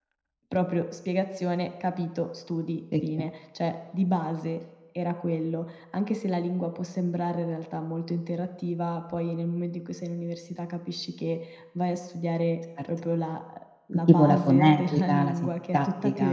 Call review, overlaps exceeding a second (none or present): present